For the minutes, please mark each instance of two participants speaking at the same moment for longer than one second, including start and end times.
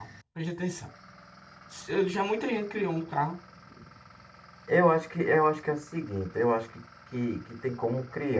none

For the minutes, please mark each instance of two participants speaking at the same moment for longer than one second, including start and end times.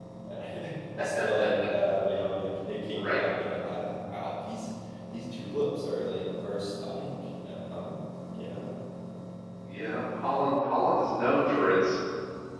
none

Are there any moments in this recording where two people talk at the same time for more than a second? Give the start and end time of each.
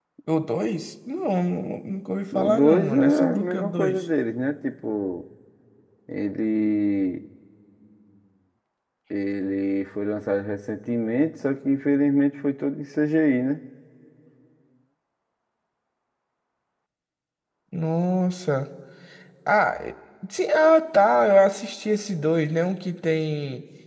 2.3-4.0

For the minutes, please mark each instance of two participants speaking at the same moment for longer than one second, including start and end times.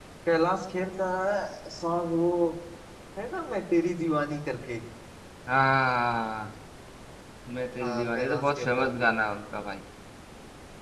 7.8-9.1

